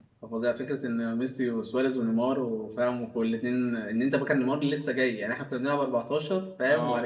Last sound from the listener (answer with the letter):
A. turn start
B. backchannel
B